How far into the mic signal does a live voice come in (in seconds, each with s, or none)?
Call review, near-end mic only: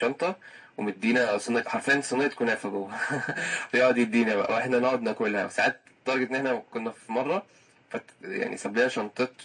none